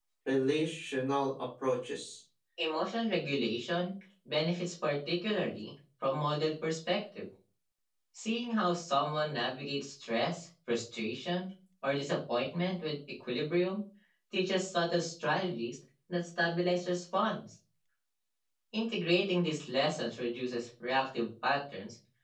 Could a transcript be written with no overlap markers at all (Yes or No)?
Yes